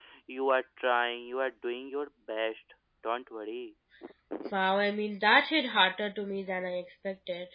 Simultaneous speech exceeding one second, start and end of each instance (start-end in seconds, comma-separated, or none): none